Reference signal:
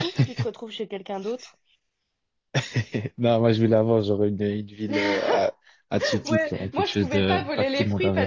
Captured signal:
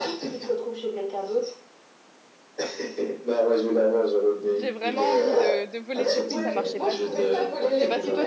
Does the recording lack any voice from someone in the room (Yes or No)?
No